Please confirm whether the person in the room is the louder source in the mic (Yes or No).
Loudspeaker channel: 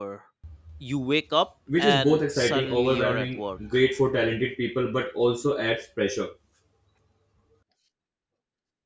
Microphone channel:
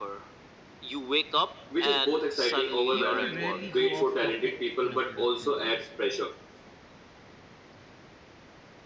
No